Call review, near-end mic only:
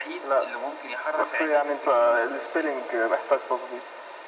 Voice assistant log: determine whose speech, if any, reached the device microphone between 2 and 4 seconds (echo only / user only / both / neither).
echo only